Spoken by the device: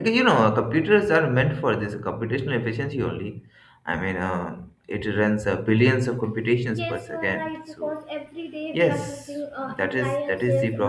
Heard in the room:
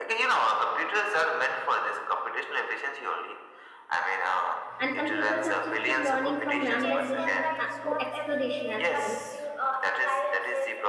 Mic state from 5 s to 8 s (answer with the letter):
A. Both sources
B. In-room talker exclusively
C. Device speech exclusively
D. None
A